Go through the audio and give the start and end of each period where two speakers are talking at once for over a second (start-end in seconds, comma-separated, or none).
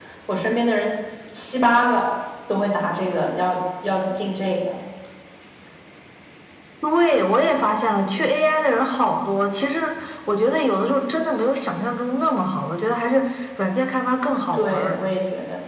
none